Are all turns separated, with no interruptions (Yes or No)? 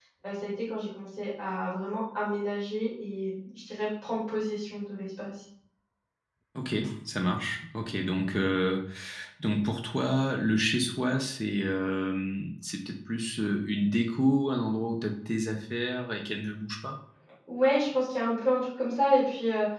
Yes